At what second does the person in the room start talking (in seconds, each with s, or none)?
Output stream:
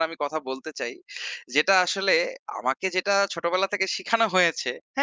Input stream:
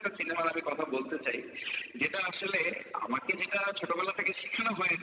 none